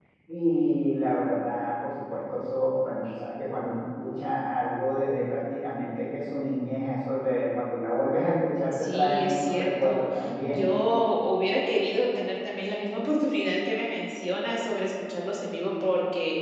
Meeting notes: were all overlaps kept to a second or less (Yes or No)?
No